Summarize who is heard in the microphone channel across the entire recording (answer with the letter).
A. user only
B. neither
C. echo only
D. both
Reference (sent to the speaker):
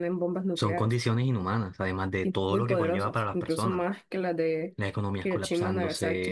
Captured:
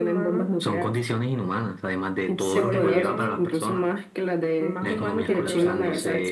D